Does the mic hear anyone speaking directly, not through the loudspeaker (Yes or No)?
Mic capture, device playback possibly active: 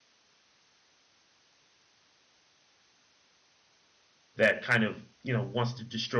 Yes